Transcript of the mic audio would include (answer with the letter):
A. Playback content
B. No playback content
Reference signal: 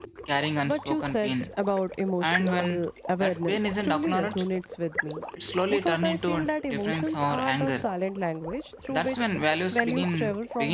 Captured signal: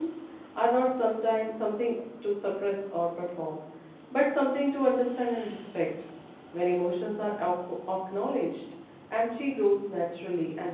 B